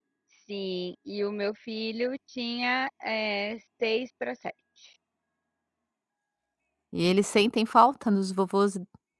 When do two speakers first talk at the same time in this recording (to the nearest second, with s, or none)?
none